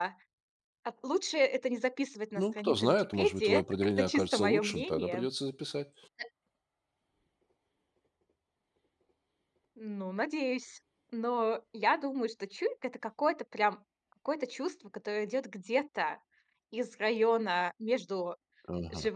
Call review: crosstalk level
present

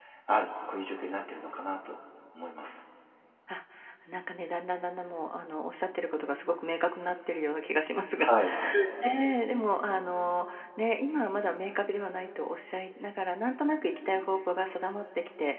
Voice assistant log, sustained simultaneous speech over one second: none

